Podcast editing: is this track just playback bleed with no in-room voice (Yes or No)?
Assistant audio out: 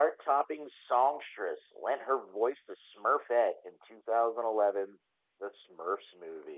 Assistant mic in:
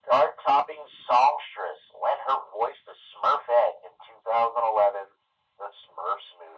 Yes